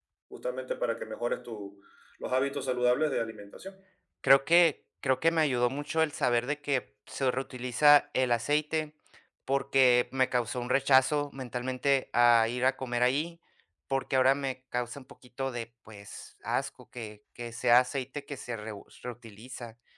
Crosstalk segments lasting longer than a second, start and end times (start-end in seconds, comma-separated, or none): none